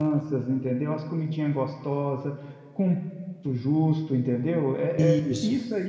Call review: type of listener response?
listening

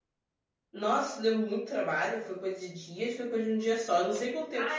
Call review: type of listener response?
taking over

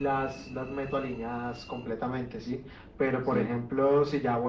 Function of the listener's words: listening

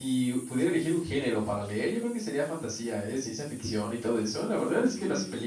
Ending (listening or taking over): listening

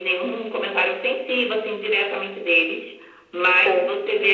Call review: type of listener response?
listening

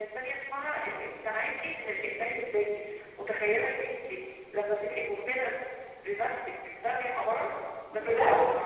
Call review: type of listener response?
listening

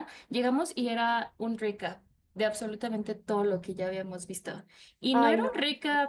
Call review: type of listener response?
listening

